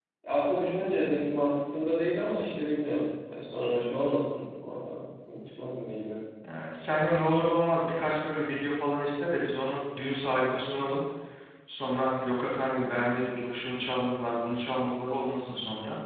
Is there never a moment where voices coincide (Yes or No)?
Yes